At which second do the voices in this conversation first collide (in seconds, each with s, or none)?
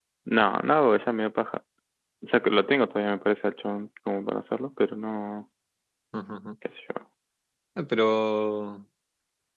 none